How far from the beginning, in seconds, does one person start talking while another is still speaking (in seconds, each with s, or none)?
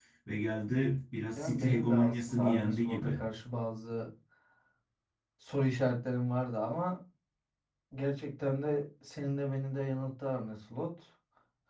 1.4 s